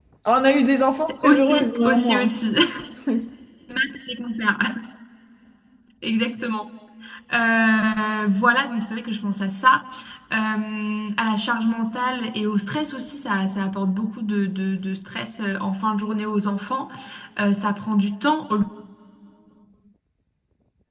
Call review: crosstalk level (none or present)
present